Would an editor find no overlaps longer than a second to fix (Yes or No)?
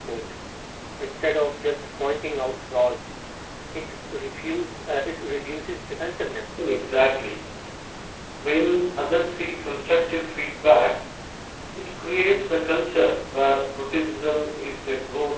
Yes